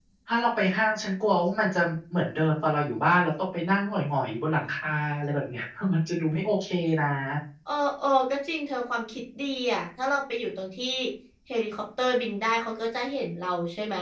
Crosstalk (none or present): none